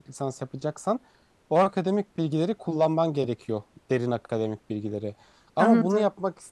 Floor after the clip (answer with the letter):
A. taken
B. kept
B